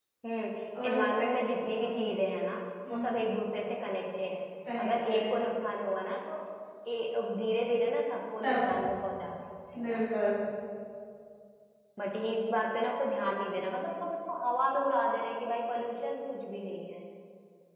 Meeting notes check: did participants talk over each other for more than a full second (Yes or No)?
No